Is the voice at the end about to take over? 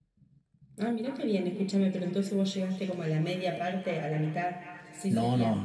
Yes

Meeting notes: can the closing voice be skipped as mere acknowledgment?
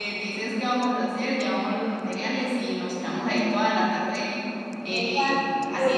No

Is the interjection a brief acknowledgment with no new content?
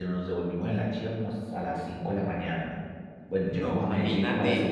Yes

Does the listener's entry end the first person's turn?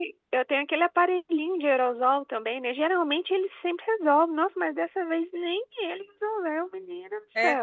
Yes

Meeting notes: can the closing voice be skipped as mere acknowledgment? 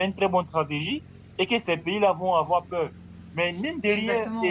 Yes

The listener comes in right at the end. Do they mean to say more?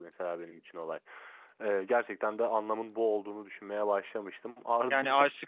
Yes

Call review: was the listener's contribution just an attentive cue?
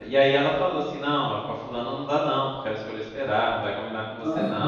Yes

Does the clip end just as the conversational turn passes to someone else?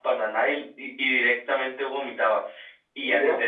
No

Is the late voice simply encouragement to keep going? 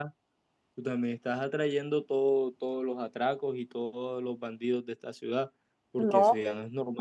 Yes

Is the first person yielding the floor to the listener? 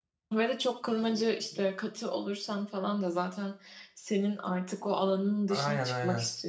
Yes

